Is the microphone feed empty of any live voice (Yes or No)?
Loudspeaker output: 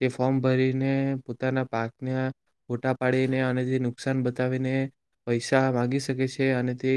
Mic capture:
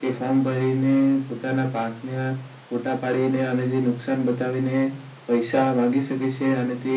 Yes